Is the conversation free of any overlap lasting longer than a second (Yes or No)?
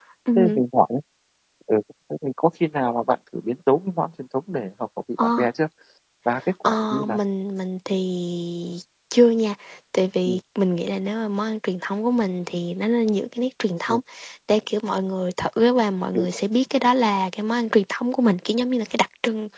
Yes